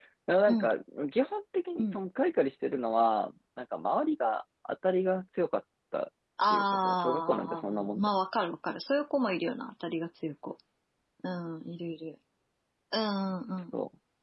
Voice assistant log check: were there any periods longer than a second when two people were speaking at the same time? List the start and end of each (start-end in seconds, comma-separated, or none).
6.5-8.1